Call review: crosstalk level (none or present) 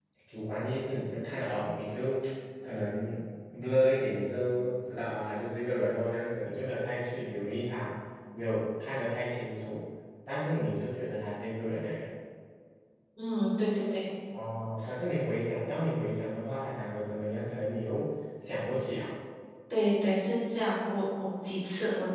none